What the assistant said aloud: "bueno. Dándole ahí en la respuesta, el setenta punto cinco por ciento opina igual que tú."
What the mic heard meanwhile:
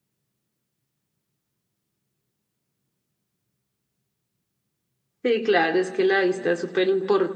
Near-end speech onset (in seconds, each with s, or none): 5.2 s